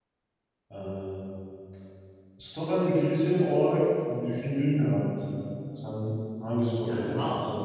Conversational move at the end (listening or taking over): taking over